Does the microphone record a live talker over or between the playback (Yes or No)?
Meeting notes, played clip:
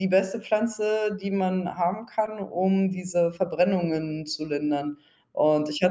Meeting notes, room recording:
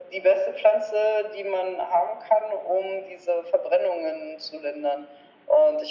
No